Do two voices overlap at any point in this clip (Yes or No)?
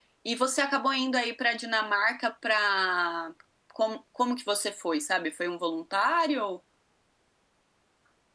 No